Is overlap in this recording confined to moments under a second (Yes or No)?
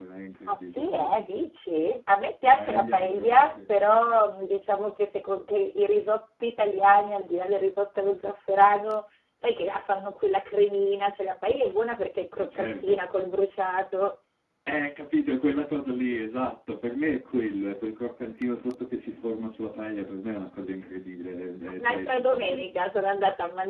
No